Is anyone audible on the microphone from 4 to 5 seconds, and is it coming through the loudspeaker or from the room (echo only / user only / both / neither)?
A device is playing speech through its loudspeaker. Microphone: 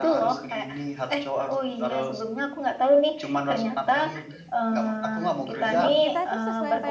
echo only